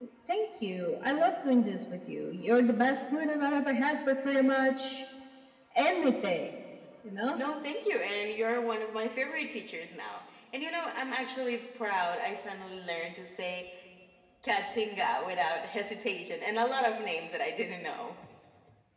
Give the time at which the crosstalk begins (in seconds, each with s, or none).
none